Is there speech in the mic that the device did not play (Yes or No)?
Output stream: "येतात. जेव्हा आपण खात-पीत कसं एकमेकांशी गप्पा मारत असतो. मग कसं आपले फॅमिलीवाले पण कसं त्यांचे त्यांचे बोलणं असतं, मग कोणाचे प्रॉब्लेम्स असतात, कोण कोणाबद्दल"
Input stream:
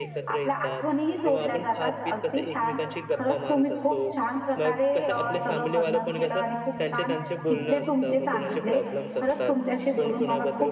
Yes